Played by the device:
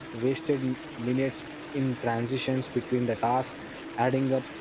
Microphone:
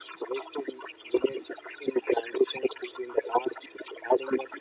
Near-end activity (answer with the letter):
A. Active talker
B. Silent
B